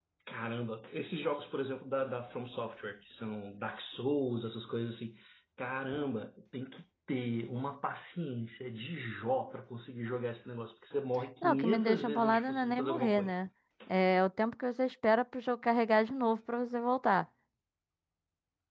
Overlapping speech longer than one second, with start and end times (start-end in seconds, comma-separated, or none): 11.4-13.3